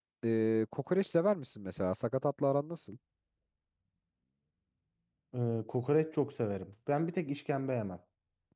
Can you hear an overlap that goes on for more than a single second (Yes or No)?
No